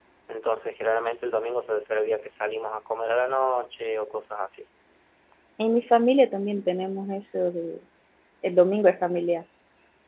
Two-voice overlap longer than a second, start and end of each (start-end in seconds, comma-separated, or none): none